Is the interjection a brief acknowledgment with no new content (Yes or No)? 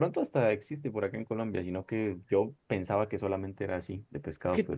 No